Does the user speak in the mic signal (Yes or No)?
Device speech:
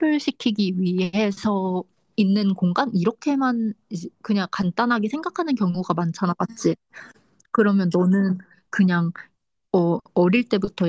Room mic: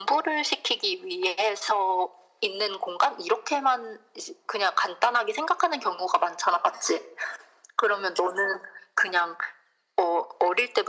No